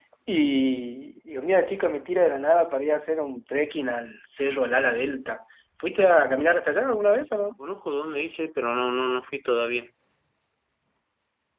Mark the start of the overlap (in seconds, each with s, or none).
none